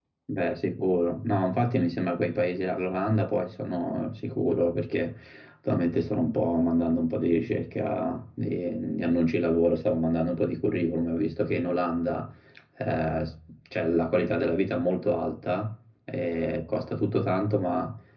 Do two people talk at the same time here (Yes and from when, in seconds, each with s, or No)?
No